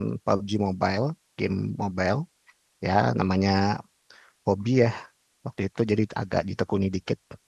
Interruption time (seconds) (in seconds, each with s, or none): none